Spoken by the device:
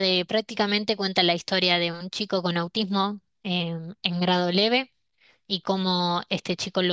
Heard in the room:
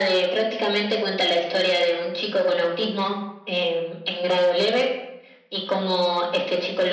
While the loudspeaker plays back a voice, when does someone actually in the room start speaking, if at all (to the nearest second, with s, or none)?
none